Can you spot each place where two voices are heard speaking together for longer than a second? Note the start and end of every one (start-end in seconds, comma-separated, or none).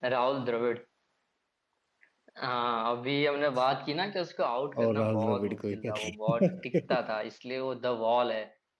4.8-7.0